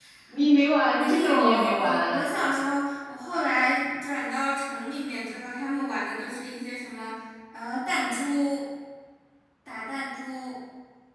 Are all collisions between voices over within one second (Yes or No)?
No